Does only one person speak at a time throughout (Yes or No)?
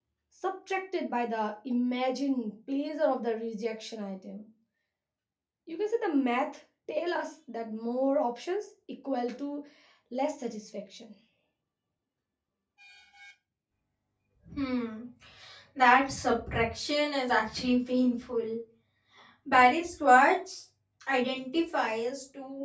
Yes